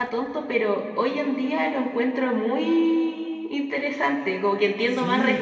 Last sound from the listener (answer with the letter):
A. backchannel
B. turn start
A